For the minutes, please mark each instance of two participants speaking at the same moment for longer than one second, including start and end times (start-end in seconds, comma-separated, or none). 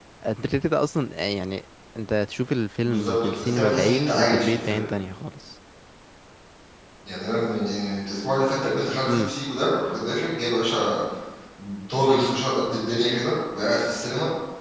2.8-4.8